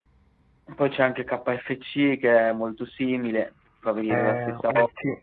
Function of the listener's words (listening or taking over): taking over